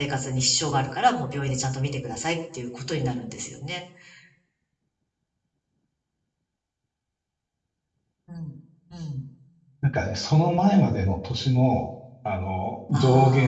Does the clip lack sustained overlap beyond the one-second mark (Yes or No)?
Yes